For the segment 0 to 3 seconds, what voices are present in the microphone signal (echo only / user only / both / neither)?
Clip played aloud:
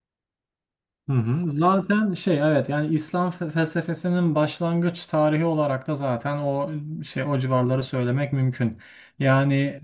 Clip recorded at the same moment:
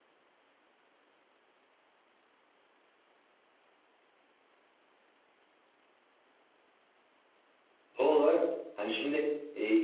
neither